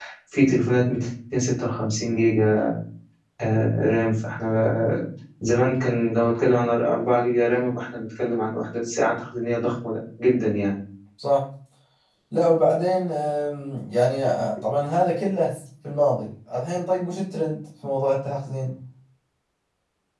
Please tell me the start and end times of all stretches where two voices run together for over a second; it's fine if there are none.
none

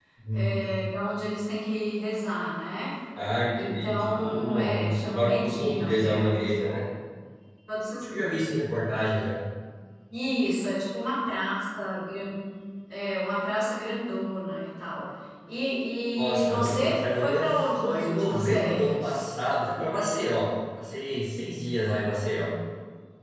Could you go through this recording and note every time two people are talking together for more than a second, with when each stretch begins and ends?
3.6-6.5, 16.2-19.3

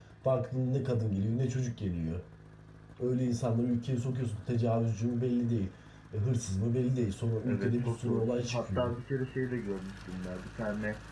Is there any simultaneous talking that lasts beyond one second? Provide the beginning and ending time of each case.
7.4-8.9

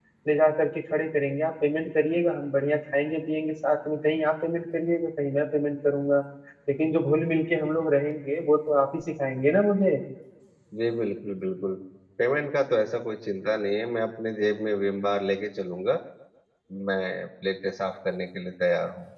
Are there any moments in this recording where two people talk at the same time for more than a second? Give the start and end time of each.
none

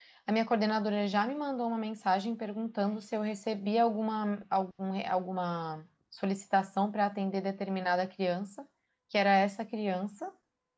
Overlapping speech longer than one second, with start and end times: none

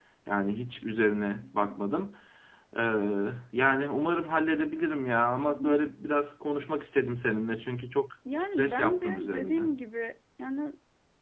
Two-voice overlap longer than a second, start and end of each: 8.4-9.6

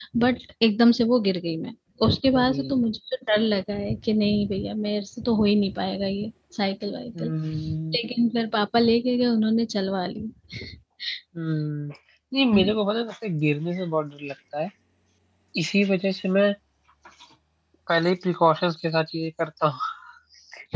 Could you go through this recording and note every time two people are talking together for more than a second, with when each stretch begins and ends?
none

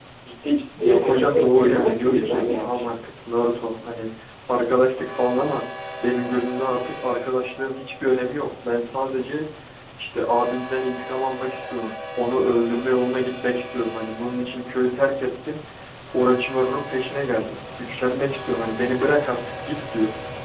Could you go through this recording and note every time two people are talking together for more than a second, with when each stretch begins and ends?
0.8-2.9

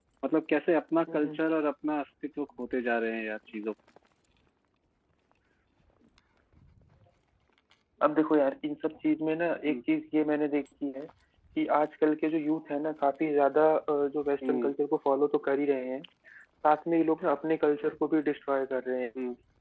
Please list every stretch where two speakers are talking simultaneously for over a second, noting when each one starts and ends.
none

